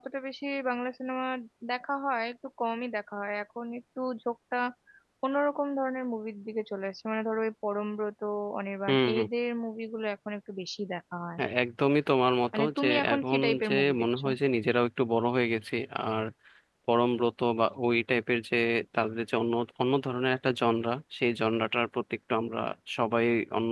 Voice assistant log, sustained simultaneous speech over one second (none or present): present